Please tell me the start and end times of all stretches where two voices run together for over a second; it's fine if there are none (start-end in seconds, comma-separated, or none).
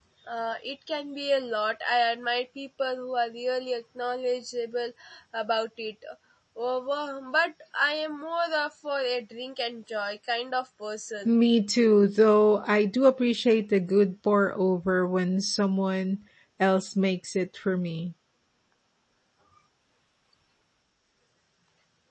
none